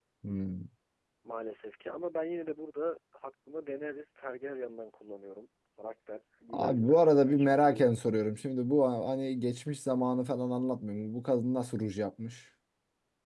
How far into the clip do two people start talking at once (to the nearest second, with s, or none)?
7 s